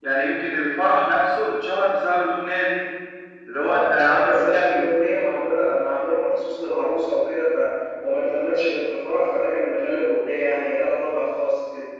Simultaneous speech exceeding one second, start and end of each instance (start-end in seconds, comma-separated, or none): 3.6-4.9